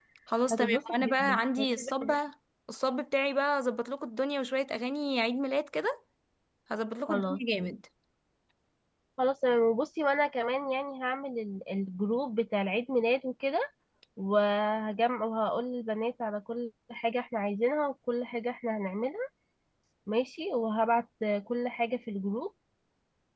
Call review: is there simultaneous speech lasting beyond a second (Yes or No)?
Yes